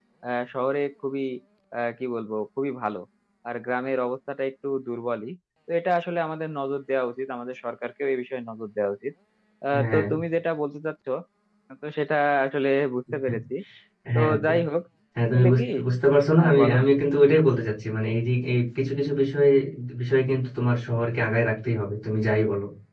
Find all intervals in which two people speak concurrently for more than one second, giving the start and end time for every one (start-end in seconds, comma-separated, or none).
none